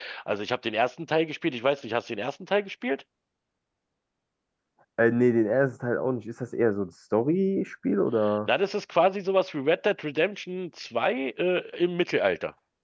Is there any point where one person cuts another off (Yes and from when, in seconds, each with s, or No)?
No